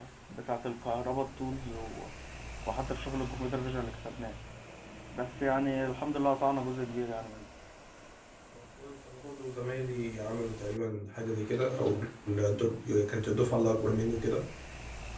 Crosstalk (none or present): none